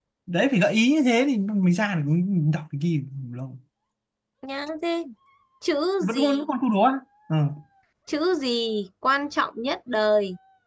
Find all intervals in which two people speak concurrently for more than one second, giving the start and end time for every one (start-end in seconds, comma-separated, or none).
none